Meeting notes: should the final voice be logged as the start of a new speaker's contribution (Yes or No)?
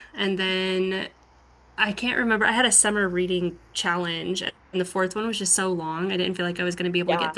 Yes